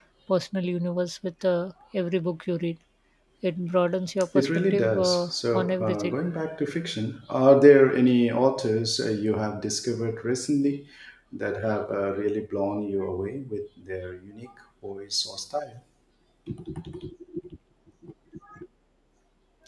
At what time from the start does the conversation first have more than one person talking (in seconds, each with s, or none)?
4.3 s